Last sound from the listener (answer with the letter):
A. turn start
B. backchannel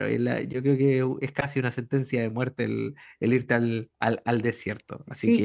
A